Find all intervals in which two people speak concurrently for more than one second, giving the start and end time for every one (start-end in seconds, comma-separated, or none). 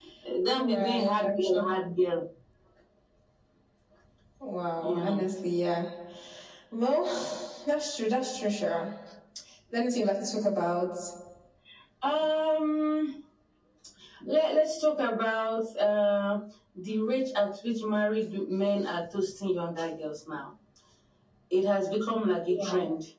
0.5-1.8